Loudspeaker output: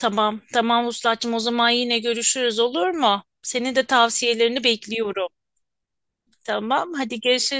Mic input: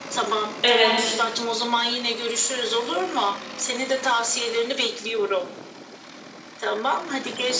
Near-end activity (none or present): present